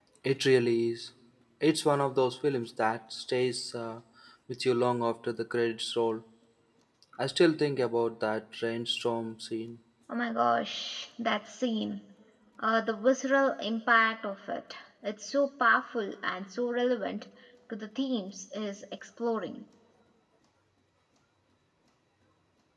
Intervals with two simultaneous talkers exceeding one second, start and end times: none

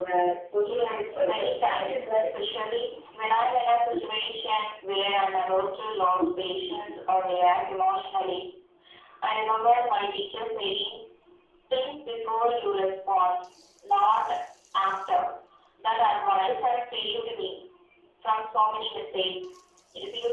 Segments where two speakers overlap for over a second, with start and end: 0.7-2.3

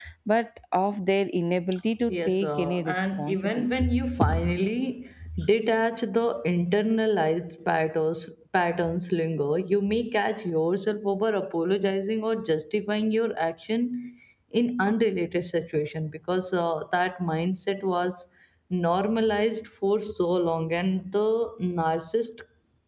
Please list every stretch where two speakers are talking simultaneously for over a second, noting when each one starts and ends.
2.1-3.9

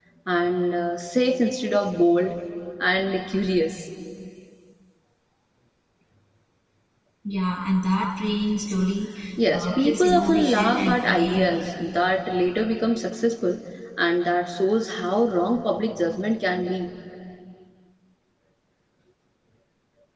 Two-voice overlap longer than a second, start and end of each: 9.5-11.7

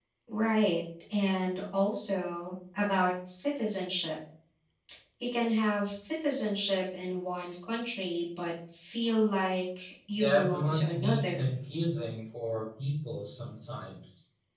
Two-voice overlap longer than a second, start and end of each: 10.1-11.5

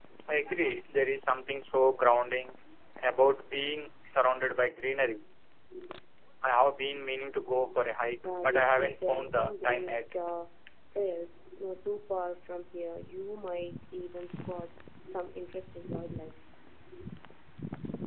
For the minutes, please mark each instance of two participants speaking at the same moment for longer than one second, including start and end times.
8.4-10.0

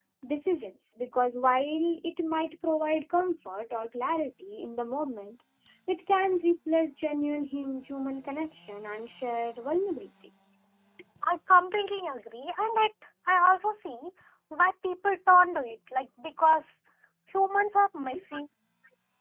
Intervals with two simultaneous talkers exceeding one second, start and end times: none

